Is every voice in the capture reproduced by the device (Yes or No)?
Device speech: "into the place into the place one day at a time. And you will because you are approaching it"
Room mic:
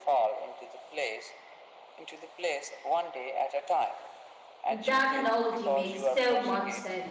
No